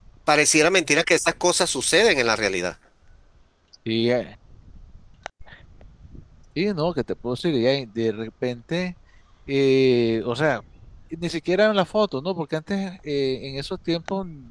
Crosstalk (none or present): none